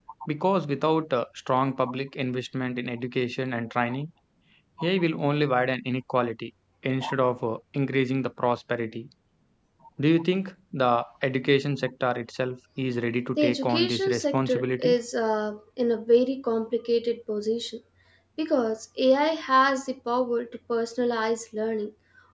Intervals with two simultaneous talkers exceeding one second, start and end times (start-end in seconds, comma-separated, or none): 13.4-15.0